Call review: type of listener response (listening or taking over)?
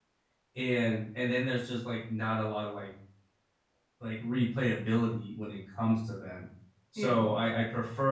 listening